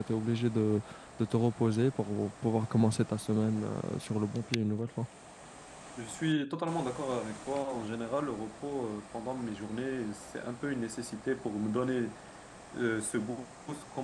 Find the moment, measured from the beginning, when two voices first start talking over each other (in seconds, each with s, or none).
none